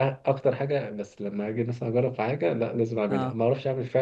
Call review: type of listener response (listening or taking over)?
listening